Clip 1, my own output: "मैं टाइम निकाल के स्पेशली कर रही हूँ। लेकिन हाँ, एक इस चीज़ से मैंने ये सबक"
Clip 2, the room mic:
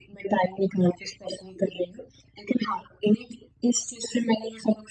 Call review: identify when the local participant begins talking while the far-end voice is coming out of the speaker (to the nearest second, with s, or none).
none